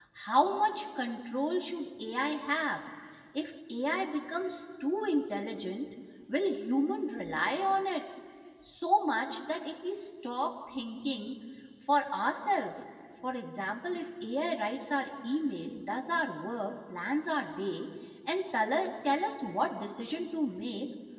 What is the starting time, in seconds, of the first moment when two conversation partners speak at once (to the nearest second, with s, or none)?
none